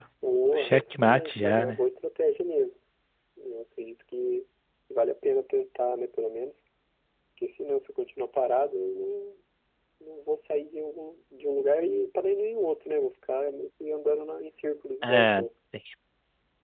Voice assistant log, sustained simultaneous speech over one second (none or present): present